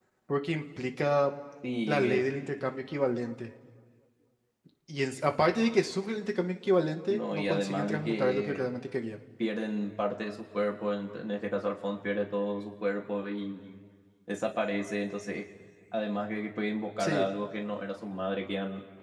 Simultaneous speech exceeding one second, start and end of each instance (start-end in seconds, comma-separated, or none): 7.1-8.7